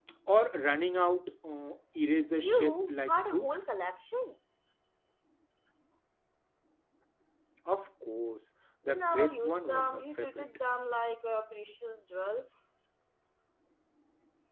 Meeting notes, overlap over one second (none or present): present